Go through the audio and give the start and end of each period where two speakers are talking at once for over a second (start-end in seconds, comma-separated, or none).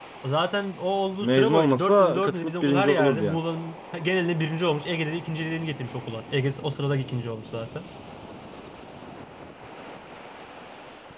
1.2-3.4